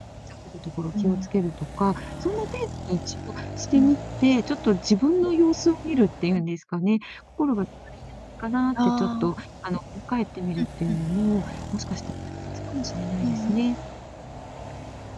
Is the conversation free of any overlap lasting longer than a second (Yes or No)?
Yes